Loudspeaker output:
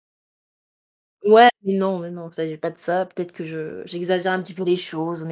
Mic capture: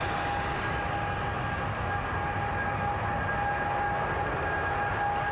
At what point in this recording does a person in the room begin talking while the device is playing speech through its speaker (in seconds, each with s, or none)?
none